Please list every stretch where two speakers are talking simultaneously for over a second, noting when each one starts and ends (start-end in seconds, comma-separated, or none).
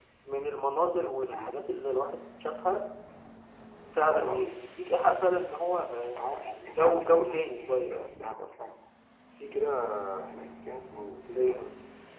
6.2-7.9